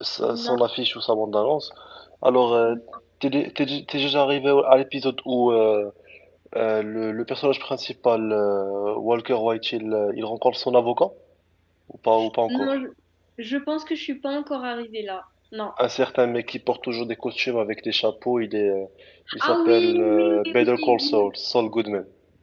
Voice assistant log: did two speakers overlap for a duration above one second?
Yes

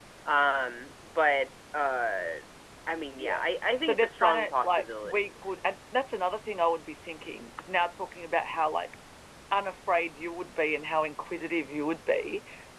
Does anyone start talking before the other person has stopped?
Yes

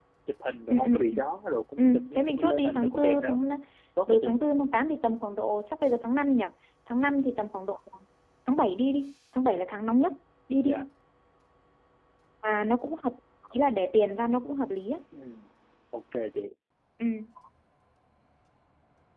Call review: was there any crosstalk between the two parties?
Yes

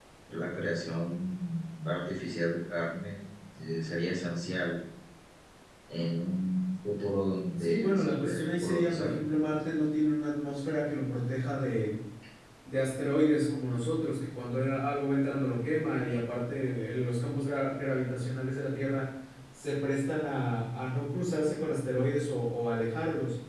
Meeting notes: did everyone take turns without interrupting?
No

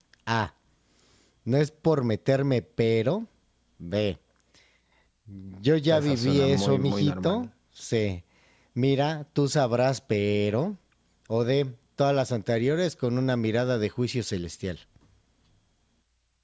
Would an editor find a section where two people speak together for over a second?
Yes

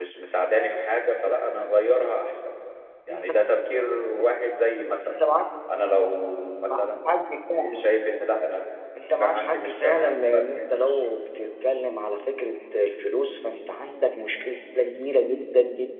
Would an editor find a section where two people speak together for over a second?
Yes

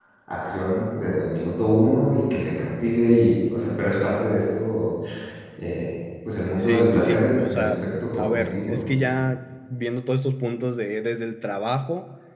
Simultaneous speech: Yes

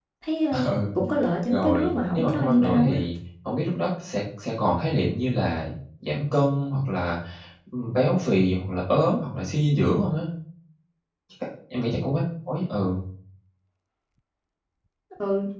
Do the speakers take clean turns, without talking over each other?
No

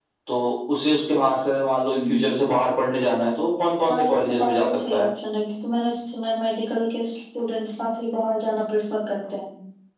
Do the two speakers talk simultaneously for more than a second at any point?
Yes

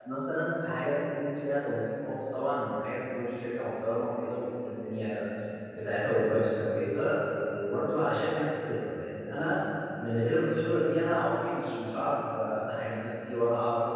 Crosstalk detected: No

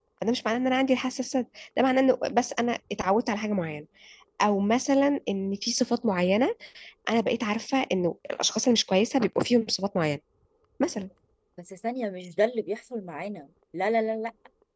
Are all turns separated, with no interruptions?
Yes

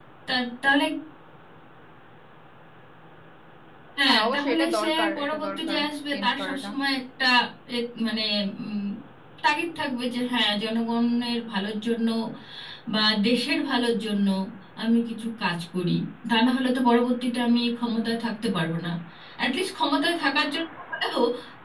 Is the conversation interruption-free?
No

